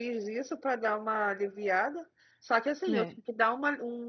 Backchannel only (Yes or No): Yes